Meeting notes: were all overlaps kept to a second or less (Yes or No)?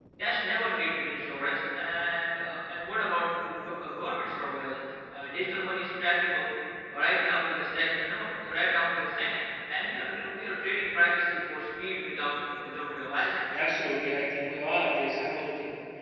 Yes